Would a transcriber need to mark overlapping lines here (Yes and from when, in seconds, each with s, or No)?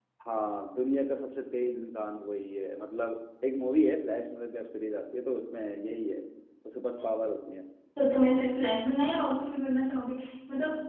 No